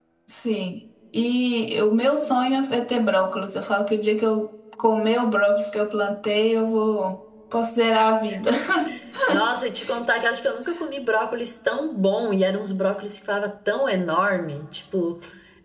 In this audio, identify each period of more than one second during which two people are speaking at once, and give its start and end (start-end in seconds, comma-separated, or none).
none